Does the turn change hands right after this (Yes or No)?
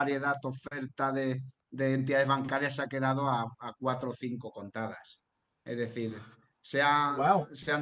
No